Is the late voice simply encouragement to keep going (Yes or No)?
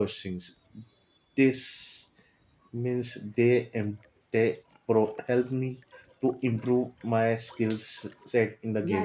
No